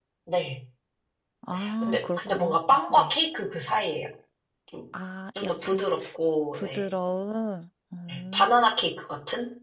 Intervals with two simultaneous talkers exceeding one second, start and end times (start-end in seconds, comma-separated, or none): 1.8-3.1